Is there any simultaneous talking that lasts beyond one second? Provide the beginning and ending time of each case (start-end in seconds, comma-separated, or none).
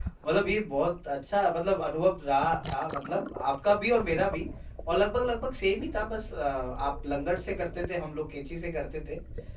none